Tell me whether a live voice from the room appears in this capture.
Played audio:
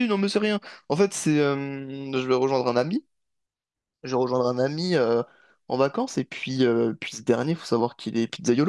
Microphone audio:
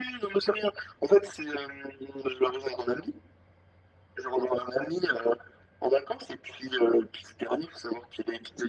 No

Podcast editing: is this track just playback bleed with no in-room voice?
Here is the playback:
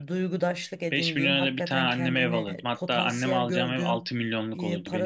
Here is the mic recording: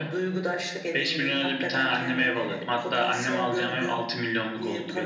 Yes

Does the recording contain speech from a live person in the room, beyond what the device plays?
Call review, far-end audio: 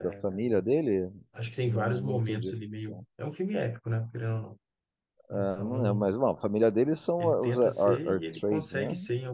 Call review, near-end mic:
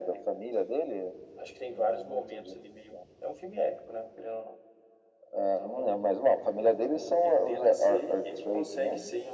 No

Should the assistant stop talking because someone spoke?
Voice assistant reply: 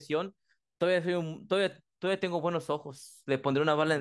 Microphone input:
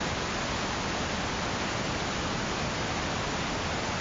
No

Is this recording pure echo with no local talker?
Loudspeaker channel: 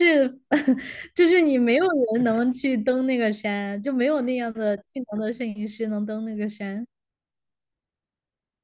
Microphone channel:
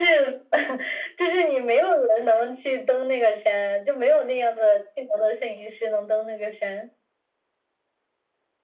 Yes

